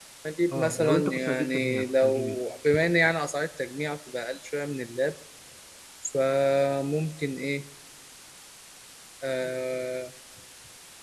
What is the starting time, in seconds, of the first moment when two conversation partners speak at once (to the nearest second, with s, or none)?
1 s